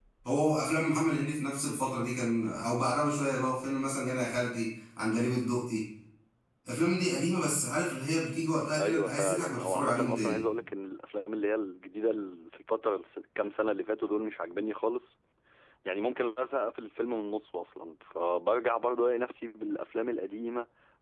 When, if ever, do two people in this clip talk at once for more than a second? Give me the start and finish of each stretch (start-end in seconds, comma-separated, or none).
8.8-10.4